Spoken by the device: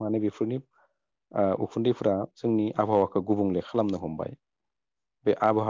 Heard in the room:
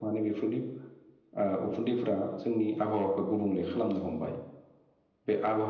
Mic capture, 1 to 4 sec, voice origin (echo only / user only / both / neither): echo only